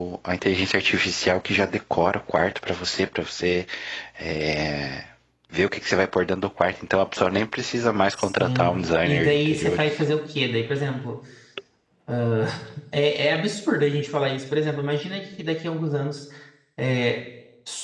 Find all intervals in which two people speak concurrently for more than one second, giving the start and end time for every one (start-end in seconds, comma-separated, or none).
8.1-9.9